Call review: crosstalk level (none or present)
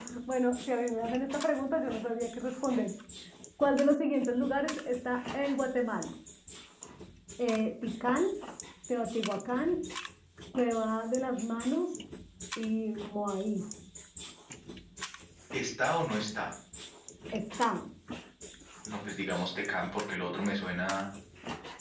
none